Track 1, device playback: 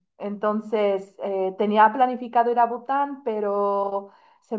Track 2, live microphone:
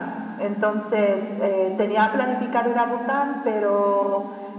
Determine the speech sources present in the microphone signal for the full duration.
echo only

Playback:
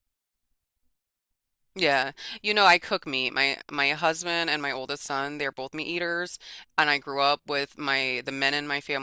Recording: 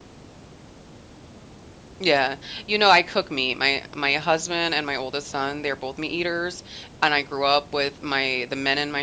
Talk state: echo only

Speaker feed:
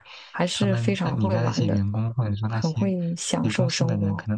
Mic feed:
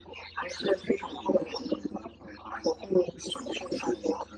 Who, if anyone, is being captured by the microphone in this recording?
echo only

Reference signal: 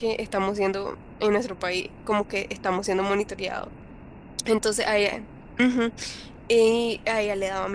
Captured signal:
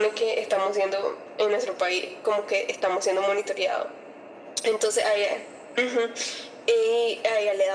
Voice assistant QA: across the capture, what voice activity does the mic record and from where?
echo only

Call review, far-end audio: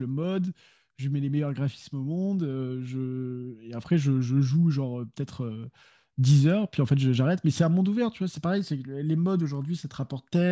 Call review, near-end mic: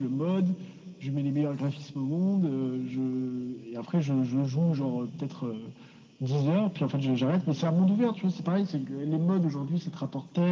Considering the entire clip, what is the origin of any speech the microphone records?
echo only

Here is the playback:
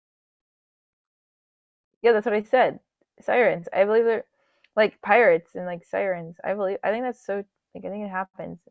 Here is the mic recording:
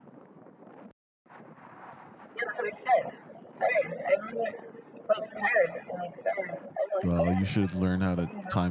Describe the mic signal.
both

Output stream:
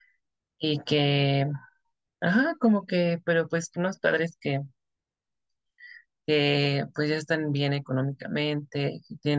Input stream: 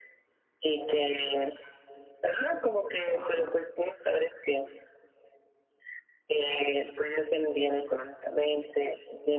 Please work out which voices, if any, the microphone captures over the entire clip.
both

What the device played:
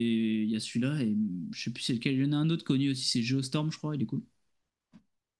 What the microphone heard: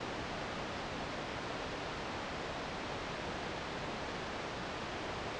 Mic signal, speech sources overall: neither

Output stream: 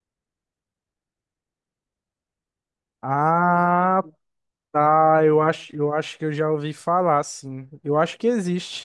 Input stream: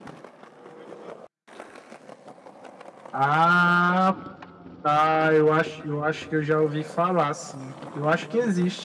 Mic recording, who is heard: echo only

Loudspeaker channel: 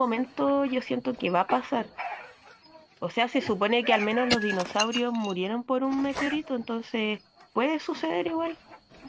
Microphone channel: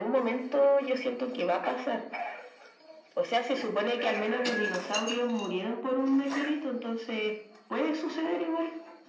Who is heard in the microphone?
echo only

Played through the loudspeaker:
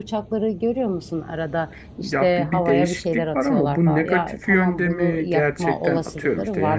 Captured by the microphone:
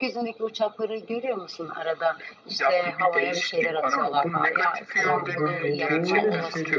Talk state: both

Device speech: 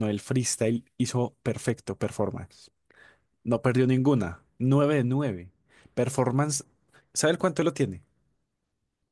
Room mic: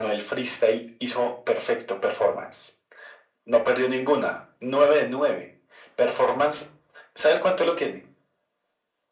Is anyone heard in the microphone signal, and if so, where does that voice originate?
echo only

